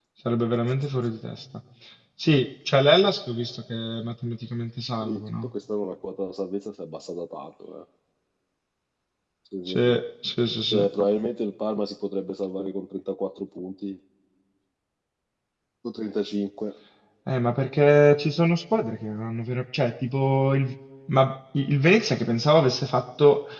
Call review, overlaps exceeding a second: none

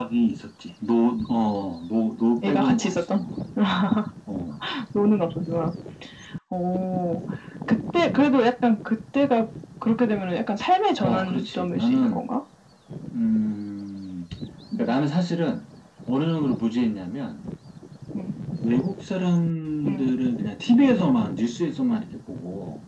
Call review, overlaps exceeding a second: present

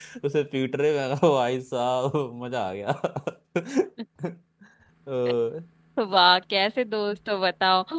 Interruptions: none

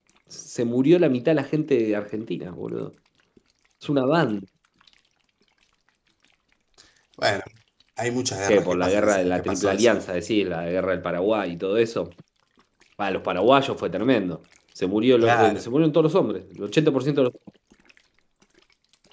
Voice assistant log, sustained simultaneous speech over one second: present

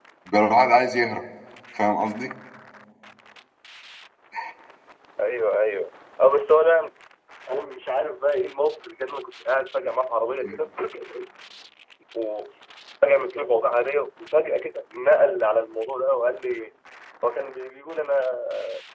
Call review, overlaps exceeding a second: none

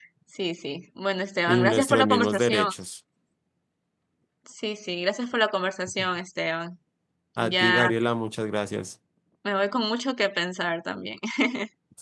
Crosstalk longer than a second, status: present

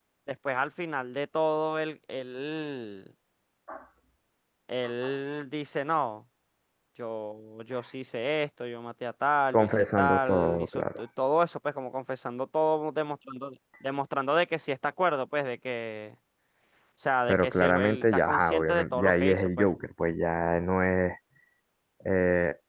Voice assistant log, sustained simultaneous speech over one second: present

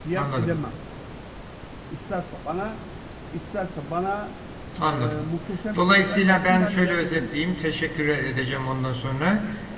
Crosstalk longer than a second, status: present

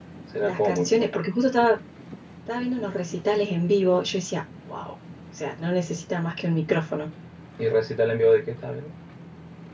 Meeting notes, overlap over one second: none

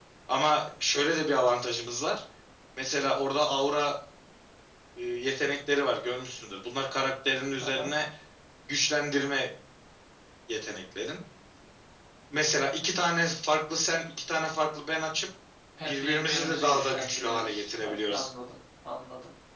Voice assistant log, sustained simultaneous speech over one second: present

